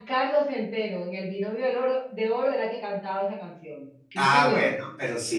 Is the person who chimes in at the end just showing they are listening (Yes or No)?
No